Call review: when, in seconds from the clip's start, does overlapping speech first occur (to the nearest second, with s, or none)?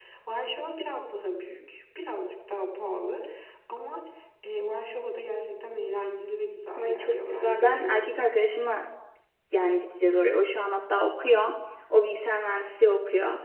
7 s